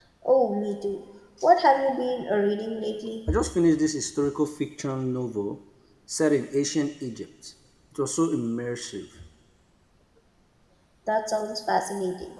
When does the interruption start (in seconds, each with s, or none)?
none